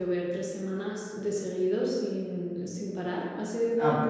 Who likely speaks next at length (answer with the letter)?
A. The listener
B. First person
A